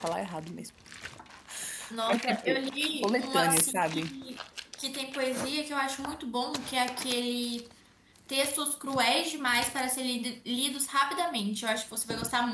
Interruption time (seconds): 2.1 s

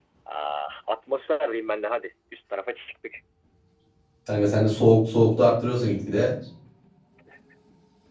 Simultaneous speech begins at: none

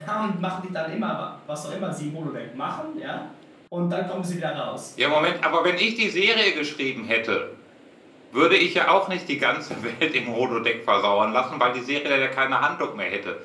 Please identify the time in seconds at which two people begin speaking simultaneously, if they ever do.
none

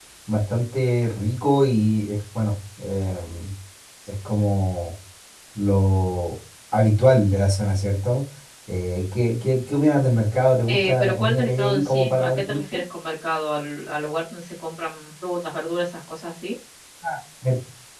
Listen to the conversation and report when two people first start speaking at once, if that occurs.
10.7 s

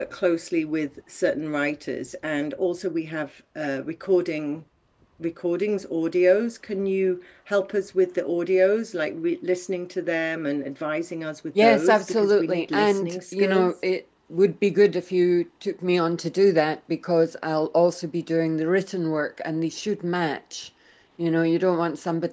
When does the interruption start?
11.6 s

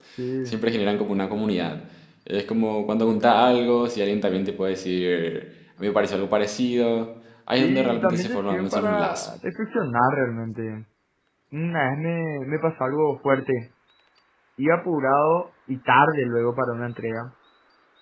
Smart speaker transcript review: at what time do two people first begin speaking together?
7.5 s

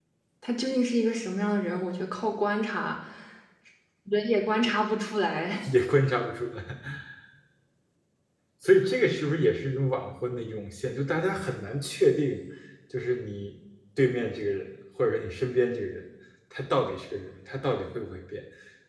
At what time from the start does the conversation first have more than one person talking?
none

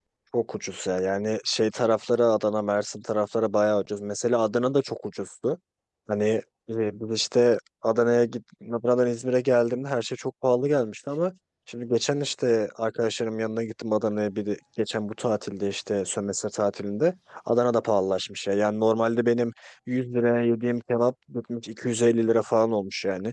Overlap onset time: none

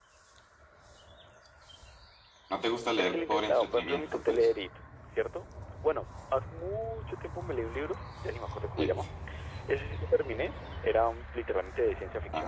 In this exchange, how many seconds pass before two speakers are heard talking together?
3.0 s

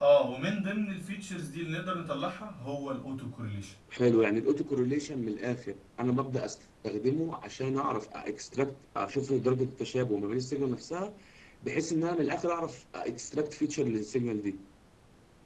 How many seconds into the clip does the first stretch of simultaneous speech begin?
none

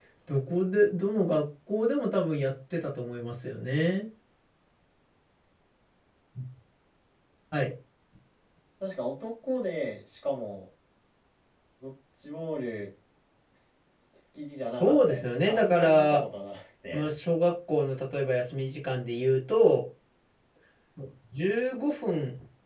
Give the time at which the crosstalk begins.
14.7 s

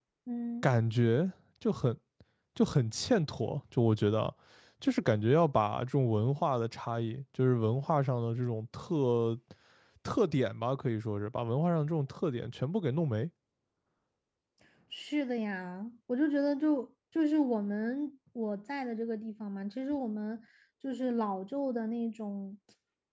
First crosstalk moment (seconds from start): none

